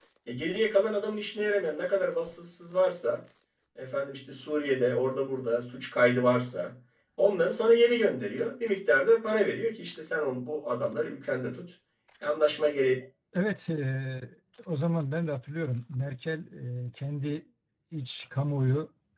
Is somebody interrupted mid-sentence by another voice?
No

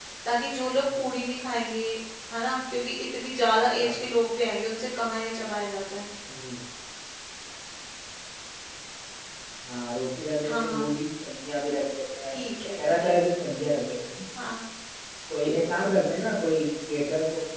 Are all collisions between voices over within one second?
Yes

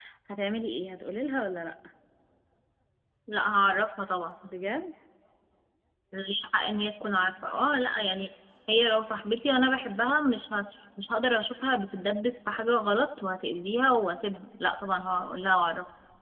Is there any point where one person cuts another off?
No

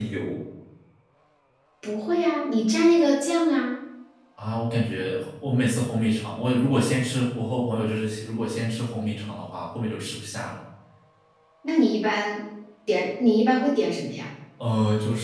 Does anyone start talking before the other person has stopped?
No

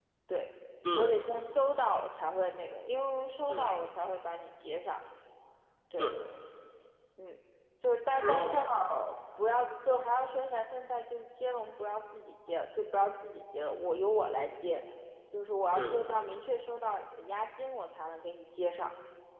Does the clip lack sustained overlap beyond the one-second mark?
Yes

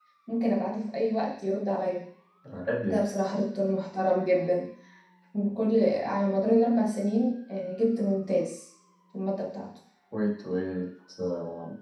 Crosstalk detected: No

